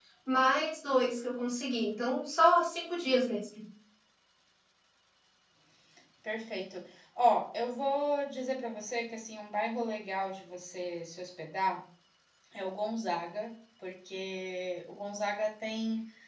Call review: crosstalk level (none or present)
none